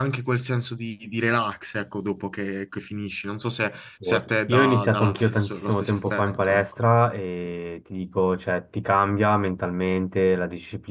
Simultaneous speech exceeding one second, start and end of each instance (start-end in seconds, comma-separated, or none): 4.0-6.8